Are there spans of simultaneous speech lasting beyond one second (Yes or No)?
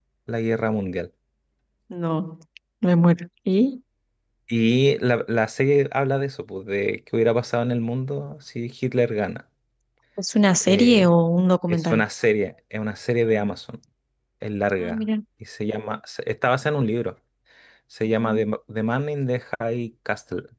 No